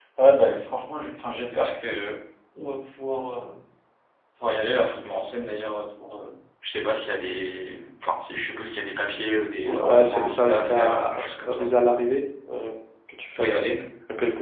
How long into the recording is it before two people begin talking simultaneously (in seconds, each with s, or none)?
9.6 s